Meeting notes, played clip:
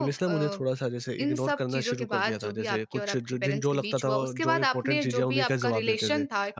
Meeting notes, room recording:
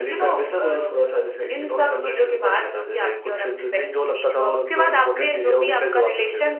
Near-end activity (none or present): none